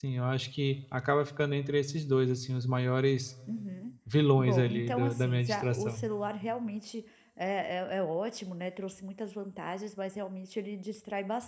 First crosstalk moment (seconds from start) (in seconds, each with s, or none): 4.4 s